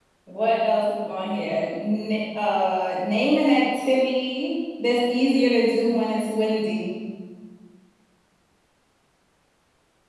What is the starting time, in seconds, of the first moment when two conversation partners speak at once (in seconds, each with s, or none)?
none